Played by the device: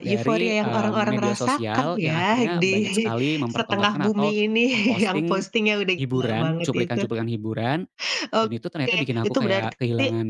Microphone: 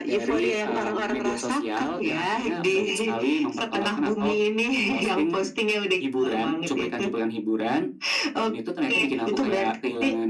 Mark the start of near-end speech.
none

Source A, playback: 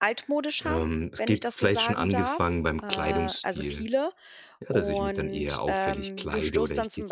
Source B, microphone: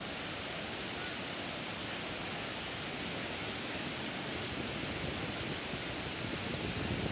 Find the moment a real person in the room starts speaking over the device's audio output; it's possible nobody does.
none

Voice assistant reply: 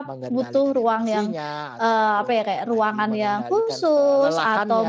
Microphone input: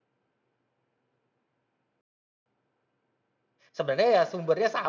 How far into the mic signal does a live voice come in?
3.7 s

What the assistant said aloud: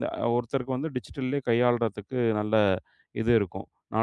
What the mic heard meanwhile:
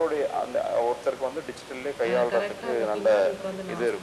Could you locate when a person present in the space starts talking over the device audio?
2.1 s

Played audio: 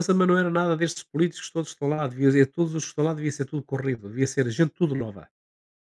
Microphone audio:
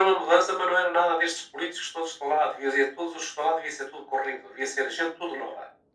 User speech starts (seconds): none

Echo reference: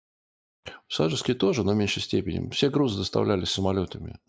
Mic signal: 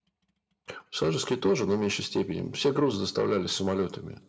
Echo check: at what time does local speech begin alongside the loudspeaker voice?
none

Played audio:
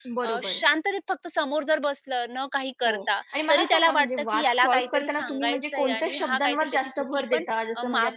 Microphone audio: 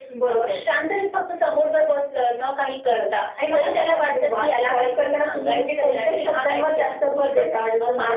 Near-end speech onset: none

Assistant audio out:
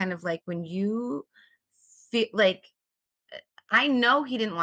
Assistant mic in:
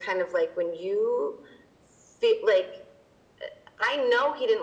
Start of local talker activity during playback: none

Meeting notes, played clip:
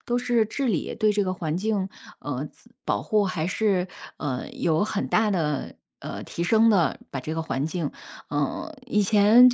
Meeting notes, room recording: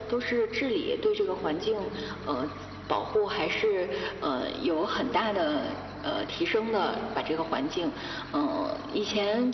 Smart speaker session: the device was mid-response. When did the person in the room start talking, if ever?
none

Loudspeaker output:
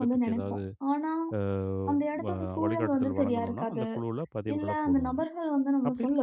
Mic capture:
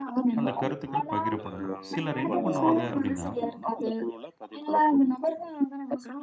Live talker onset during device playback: 0.4 s

